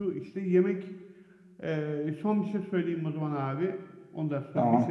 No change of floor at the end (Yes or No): Yes